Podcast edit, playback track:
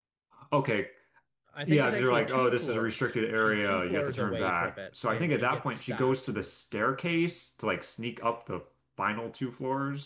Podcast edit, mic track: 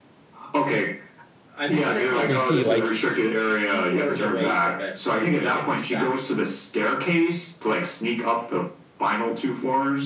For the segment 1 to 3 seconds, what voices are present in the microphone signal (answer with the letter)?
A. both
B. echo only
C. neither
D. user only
A